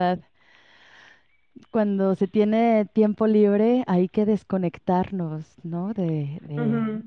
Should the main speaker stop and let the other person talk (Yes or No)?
Yes